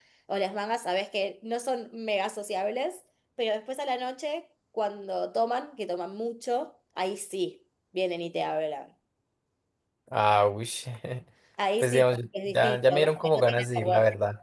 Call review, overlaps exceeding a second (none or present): present